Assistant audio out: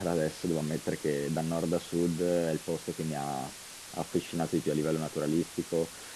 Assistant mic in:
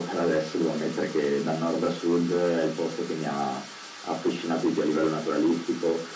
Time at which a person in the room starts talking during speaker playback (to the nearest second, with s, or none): none